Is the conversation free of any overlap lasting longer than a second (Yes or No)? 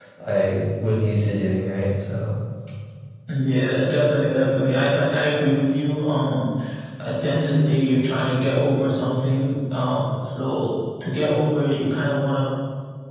Yes